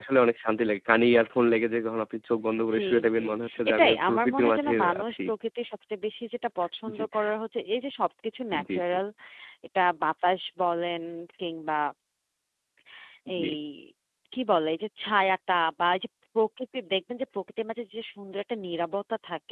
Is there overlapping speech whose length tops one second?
Yes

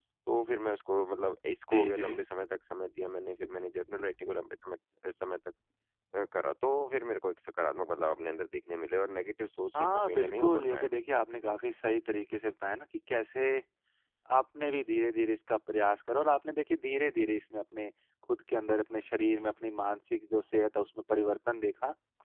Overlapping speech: Yes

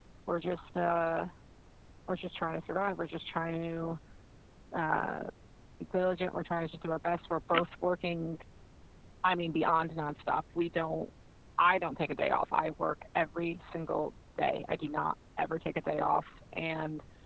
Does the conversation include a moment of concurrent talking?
No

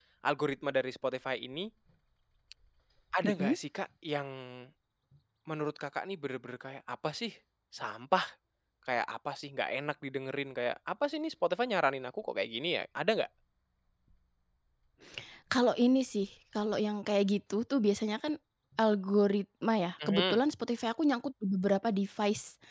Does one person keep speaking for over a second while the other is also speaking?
No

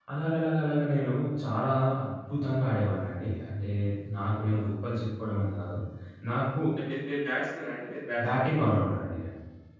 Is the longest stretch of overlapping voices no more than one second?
Yes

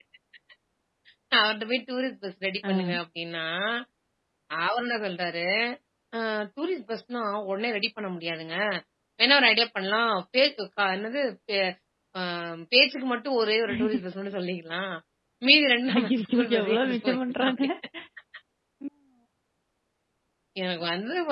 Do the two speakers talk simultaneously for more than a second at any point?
Yes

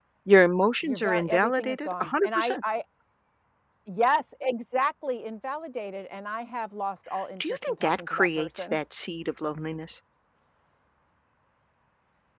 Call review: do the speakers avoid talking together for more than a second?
No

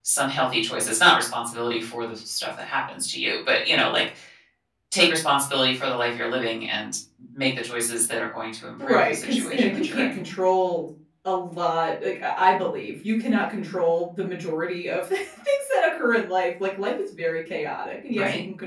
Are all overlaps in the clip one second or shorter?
No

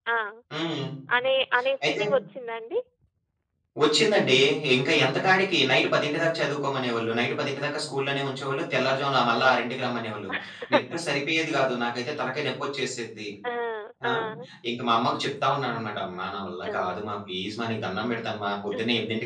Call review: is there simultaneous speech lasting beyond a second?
No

